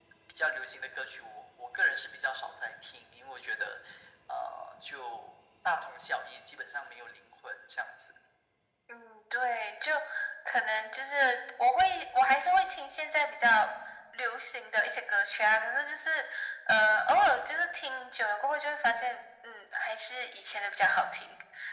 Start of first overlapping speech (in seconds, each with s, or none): none